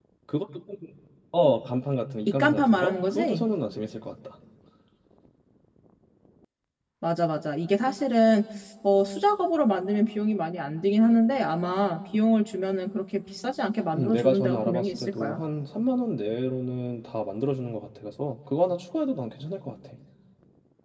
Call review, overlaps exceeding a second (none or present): present